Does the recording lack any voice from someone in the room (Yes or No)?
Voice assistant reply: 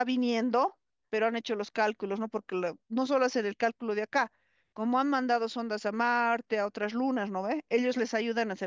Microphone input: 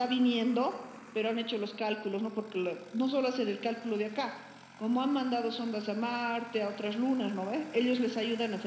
Yes